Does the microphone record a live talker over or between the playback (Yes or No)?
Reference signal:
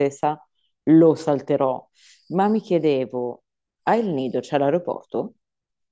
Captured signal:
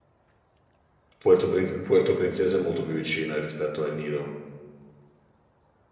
Yes